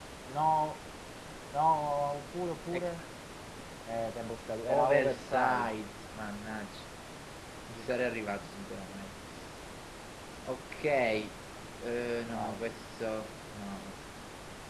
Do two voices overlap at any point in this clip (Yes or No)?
Yes